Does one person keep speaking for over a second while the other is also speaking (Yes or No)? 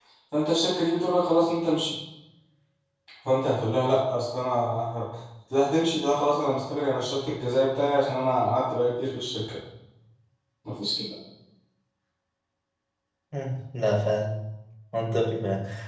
No